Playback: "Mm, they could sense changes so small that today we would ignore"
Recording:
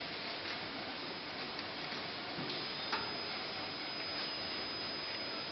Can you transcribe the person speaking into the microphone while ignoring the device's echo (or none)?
none